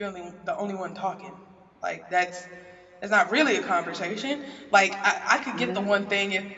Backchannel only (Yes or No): Yes